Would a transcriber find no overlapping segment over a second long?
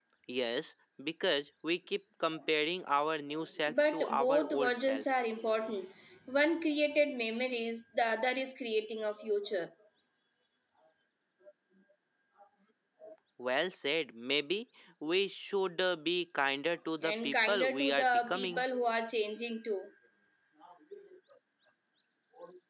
No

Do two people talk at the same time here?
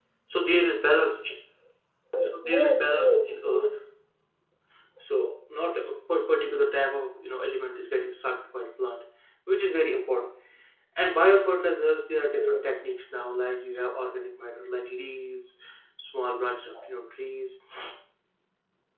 Yes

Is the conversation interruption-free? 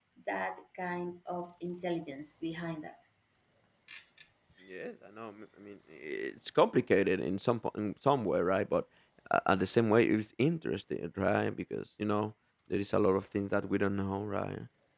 Yes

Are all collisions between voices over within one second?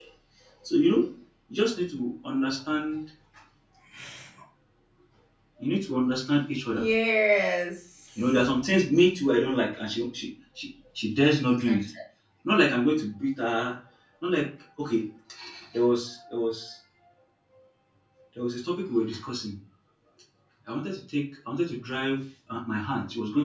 Yes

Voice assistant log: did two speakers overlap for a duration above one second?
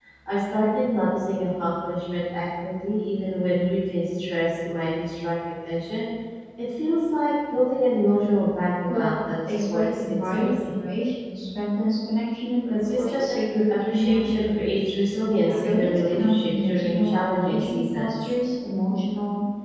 Yes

